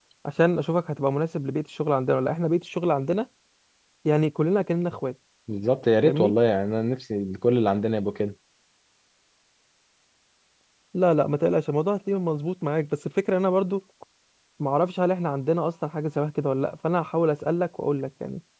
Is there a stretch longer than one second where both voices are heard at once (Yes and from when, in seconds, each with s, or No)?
No